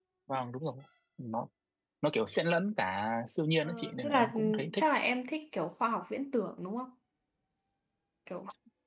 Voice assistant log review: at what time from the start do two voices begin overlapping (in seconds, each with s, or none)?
3.6 s